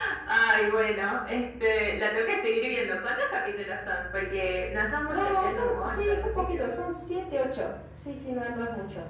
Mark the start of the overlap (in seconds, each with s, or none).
5.1 s